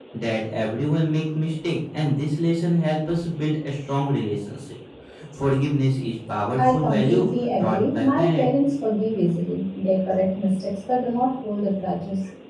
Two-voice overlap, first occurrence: 6.6 s

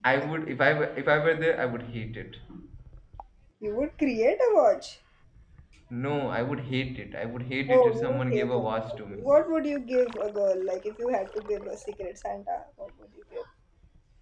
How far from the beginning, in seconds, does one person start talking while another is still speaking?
7.7 s

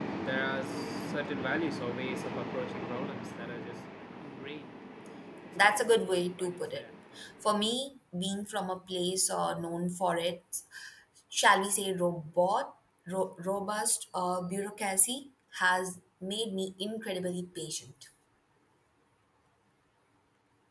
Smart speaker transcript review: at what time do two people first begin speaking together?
5.6 s

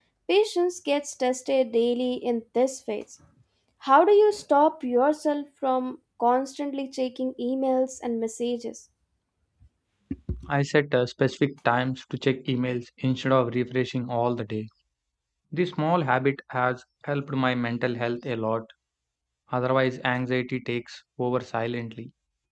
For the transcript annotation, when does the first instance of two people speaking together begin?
none

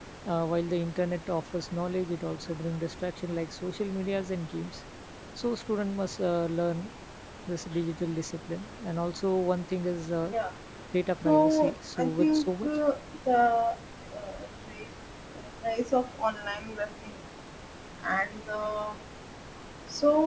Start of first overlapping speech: 11.2 s

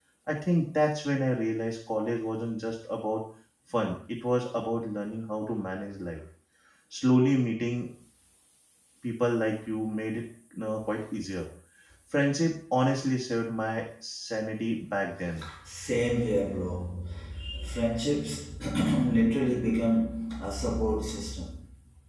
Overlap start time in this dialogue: none

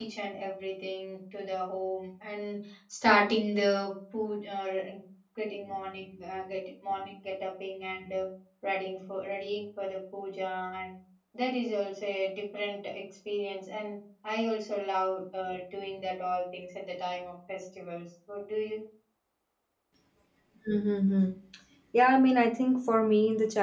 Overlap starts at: none

